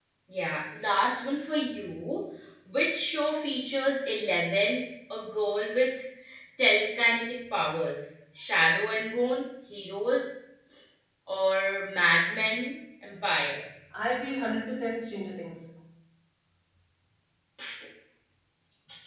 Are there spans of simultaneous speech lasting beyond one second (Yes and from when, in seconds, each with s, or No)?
No